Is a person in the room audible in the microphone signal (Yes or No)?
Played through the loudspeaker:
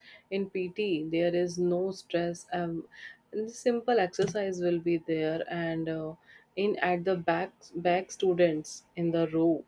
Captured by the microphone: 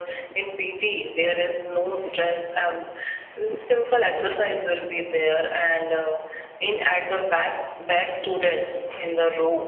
No